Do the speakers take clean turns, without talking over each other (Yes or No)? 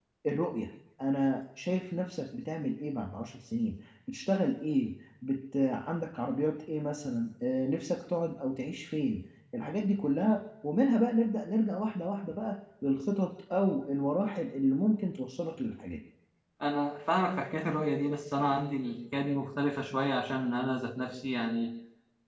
Yes